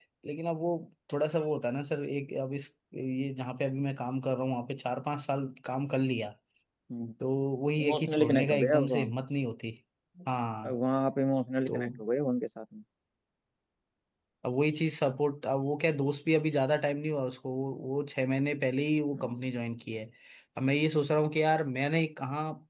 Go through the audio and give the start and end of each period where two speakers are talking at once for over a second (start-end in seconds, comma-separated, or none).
7.8-9.1